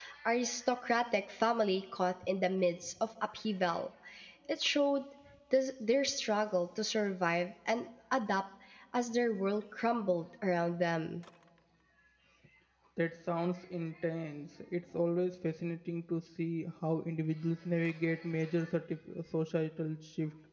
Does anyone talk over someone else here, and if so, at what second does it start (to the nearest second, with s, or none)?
none